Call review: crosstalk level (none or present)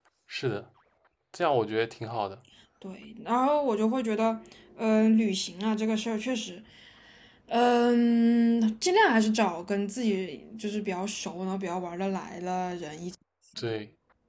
none